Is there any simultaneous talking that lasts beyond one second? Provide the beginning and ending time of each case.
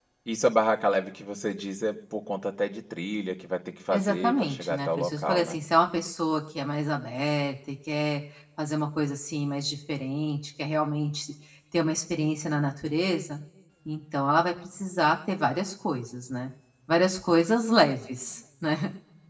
3.9-5.6

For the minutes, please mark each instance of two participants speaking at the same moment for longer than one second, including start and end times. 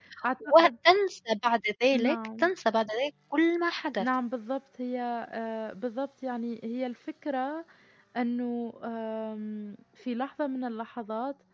none

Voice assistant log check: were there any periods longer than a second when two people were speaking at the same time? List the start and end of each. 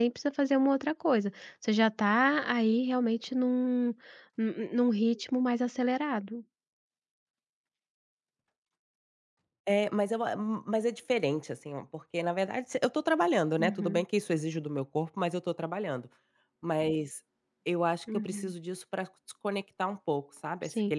none

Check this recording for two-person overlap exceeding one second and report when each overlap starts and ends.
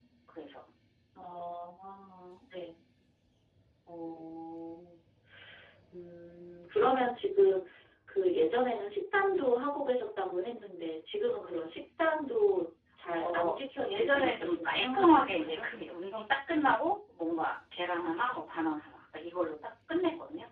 13.2-15.6

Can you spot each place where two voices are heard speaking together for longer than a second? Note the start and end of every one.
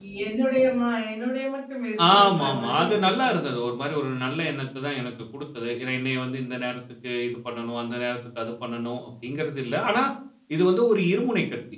2.1-3.3

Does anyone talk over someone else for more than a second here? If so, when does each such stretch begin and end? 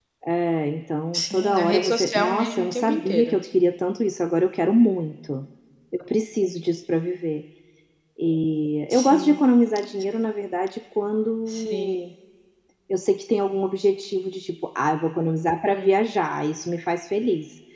1.1-3.4

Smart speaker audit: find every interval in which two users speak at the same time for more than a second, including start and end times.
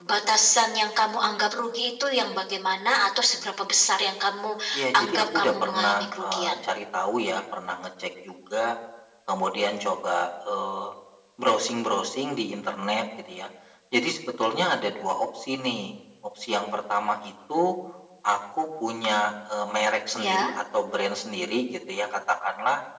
5.0-6.5

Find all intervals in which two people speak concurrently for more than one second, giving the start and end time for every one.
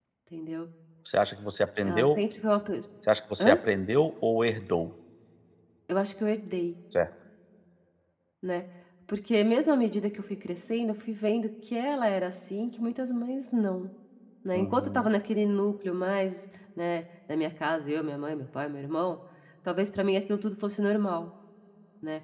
none

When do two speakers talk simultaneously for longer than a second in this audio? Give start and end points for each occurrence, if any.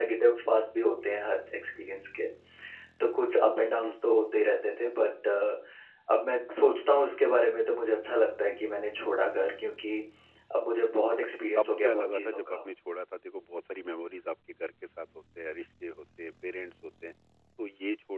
11.2-12.6

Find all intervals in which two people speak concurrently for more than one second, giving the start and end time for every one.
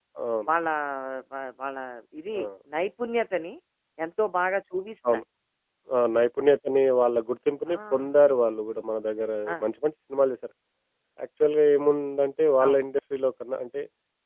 none

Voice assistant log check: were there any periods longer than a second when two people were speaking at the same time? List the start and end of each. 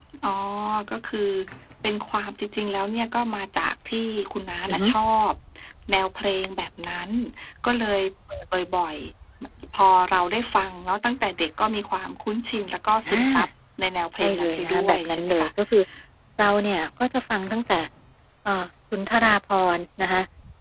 14.2-15.5

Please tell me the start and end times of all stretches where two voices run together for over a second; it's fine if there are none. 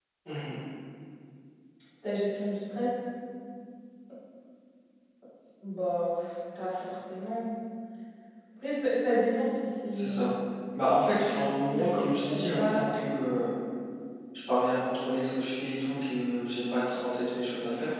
11.7-12.9

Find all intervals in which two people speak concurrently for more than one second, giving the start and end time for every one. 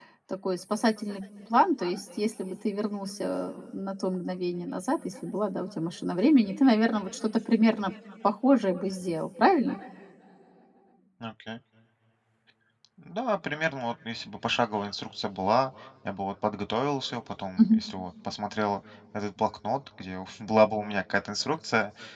none

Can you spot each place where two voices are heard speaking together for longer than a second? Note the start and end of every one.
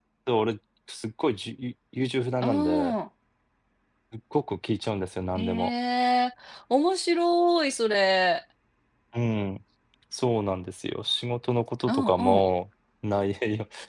none

